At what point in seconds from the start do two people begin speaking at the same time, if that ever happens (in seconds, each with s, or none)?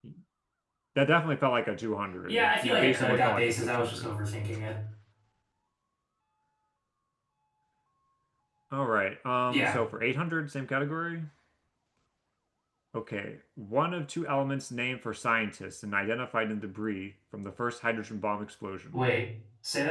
2.3 s